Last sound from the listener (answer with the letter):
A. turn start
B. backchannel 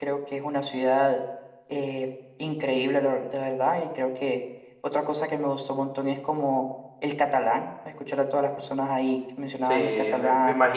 A